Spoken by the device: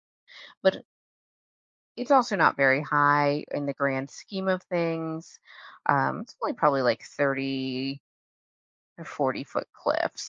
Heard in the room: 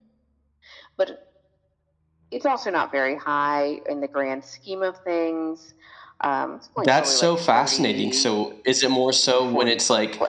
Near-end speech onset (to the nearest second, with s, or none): 7 s